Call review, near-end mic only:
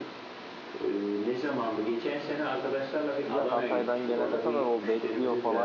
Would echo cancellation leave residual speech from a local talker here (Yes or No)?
Yes